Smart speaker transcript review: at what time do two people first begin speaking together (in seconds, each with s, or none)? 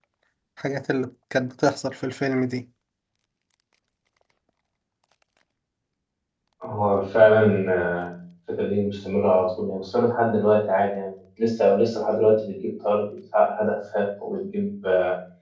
none